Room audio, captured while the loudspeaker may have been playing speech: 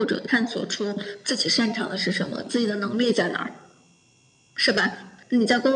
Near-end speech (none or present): none